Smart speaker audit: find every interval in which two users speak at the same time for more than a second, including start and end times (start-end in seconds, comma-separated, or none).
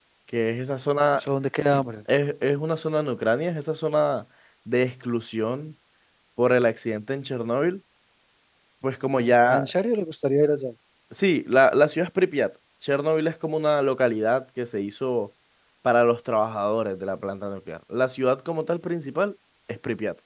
none